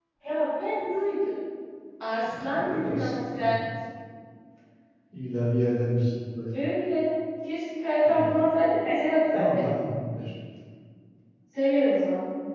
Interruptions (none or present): present